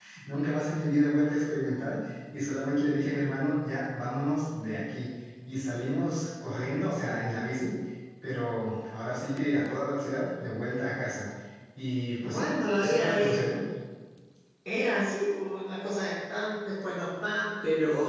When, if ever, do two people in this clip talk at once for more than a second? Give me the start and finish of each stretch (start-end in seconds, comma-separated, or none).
12.2-13.4